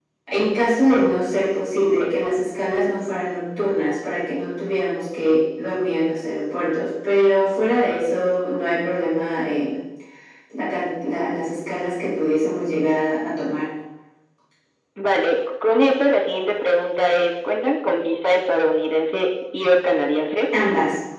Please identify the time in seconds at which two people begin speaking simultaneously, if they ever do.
none

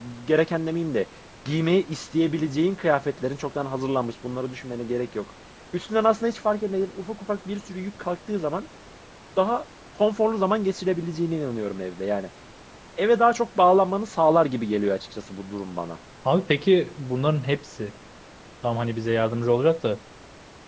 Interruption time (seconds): none

